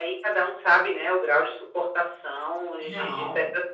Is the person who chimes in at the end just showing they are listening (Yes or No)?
Yes